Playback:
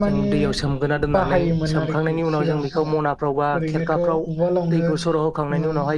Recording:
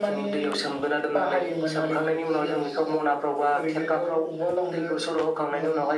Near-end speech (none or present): none